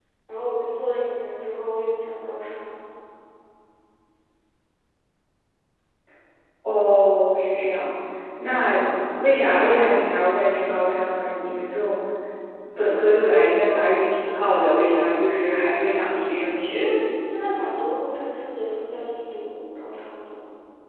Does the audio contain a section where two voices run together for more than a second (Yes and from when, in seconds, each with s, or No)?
No